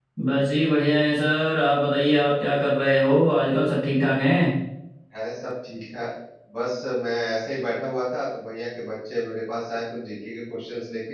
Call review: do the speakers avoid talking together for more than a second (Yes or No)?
Yes